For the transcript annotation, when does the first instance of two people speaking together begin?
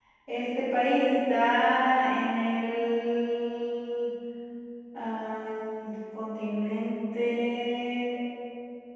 none

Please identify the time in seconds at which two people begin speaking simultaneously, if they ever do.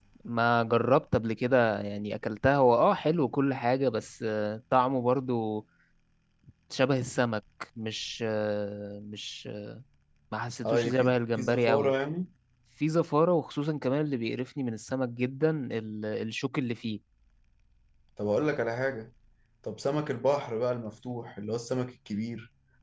10.6 s

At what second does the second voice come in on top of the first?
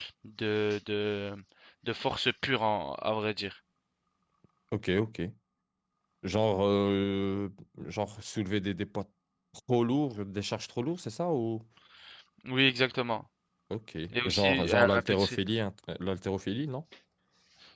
14.1 s

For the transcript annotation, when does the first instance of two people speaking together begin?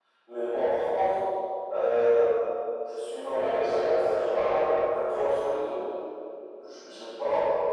3.3 s

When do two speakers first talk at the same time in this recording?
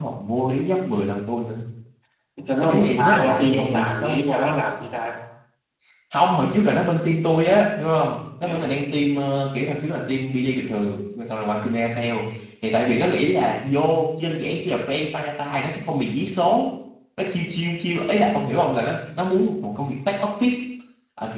2.6 s

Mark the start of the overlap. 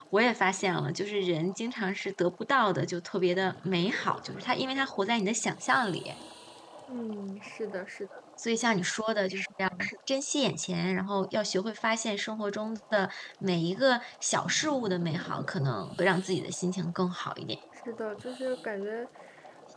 none

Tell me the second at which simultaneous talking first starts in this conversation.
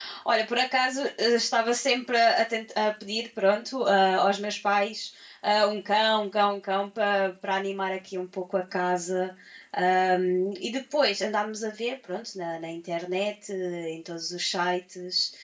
none

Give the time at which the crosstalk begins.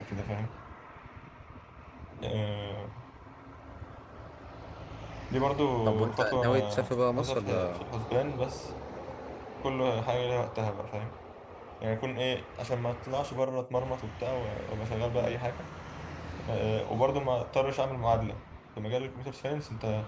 6.1 s

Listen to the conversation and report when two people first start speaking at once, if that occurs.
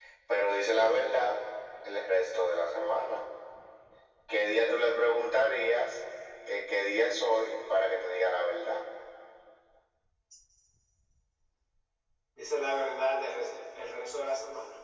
none

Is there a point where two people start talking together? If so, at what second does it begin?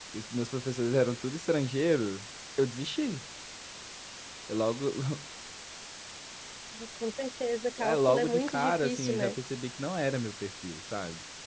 7.8 s

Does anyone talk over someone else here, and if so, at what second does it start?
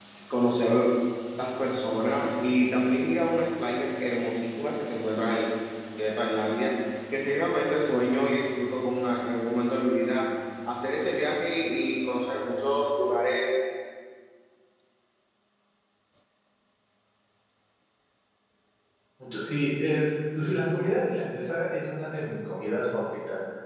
none

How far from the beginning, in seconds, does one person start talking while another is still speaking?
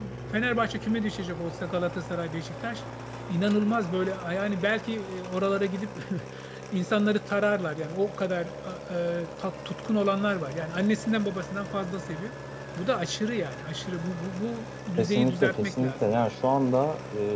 15.0 s

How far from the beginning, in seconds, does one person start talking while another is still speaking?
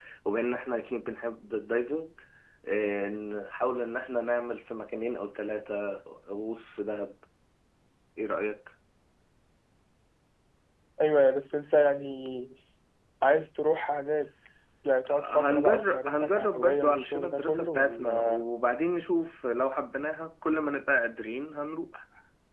15.3 s

